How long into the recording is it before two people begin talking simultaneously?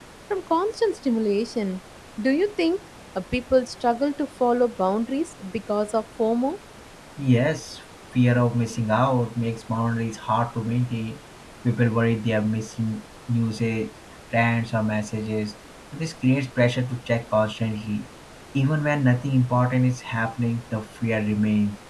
none

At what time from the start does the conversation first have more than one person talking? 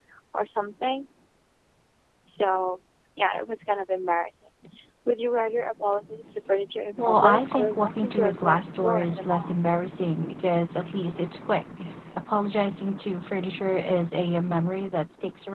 6.9 s

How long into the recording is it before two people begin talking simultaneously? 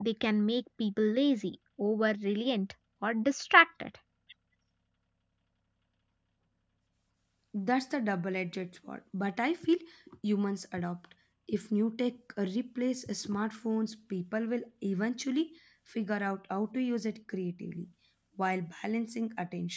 none

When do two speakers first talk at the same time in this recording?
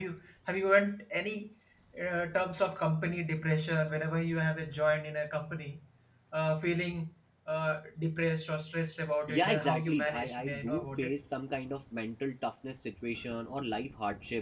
9.3 s

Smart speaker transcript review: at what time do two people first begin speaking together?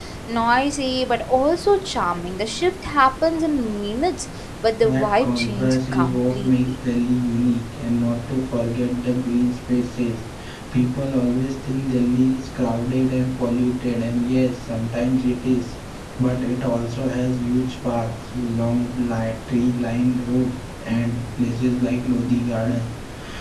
4.8 s

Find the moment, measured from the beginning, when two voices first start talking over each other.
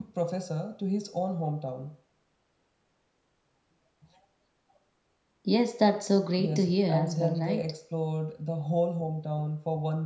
6.4 s

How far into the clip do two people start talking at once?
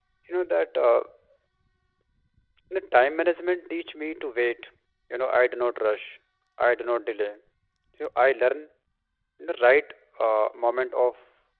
none

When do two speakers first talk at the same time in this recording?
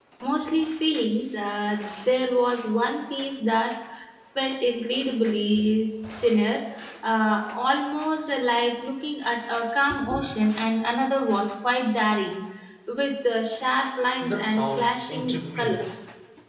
14.2 s

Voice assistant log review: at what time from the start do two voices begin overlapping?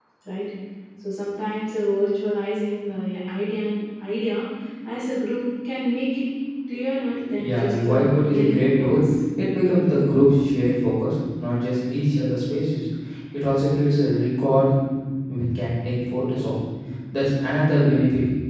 7.4 s

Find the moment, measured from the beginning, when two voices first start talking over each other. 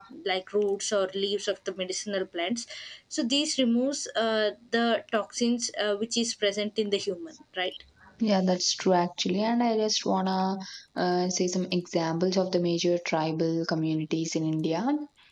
none

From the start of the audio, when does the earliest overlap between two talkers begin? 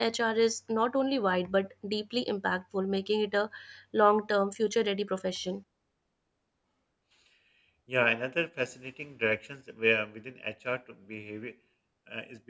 none

